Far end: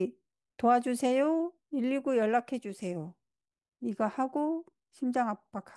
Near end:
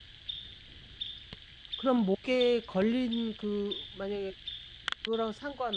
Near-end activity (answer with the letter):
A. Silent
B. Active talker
B